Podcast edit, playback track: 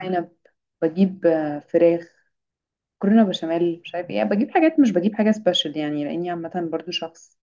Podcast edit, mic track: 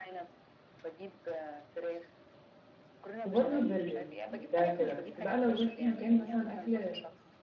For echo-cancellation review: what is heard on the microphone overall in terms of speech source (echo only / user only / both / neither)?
both